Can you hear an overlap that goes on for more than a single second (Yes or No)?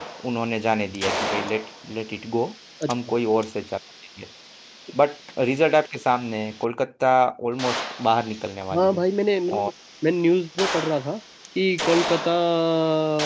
No